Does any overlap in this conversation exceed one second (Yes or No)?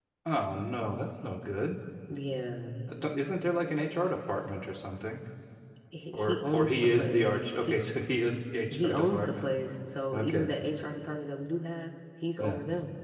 Yes